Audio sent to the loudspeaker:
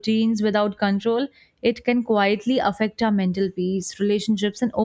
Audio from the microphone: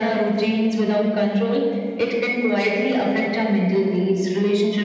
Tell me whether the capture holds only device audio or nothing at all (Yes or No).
Yes